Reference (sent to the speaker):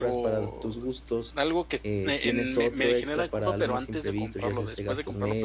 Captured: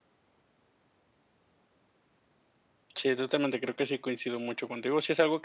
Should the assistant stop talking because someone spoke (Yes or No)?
Yes